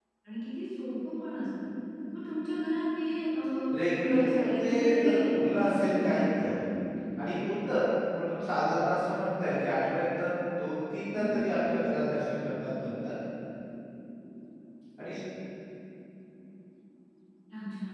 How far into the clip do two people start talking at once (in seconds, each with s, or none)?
3.9 s